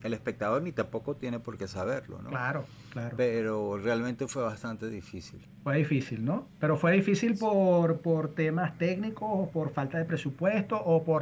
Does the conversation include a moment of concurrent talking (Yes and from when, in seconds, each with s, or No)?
No